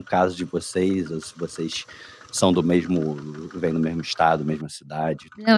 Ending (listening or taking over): taking over